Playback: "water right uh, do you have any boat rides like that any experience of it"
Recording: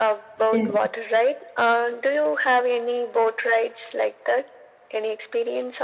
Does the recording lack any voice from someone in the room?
No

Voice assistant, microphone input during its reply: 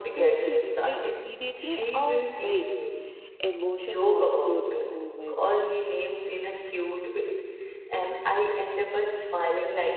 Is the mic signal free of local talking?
No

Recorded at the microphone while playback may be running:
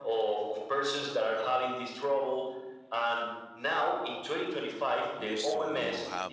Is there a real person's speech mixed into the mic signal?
Yes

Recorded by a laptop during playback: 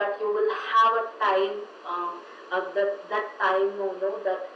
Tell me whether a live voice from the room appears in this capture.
No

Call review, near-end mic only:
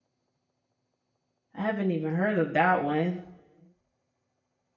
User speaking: Yes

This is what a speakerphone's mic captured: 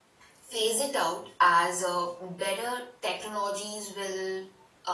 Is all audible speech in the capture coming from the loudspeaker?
No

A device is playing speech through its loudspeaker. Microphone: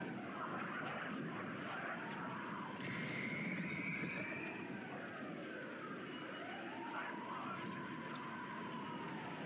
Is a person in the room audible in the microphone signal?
No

